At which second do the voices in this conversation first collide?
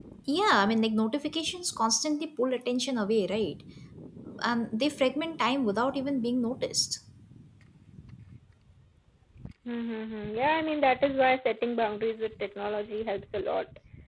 none

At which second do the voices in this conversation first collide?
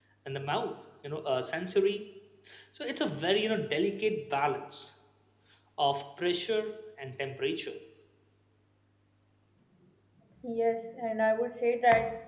none

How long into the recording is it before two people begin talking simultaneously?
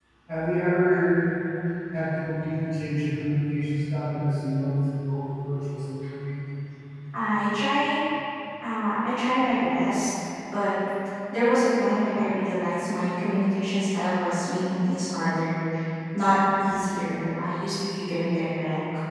none

